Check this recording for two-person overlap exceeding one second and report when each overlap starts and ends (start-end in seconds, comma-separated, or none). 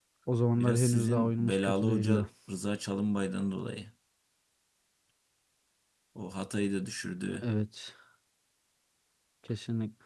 0.6-2.2